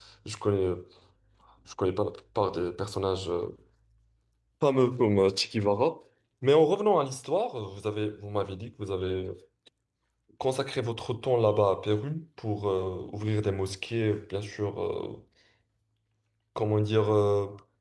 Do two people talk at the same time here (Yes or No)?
No